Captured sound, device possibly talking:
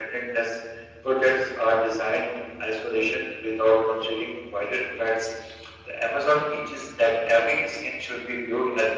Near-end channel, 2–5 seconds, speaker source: echo only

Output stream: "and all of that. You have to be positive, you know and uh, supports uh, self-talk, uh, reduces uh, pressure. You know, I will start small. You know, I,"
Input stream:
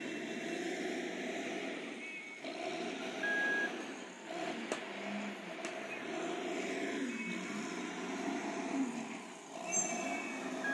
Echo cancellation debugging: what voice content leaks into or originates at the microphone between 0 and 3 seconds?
neither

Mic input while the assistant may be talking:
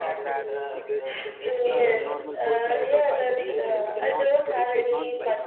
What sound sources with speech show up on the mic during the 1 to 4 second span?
both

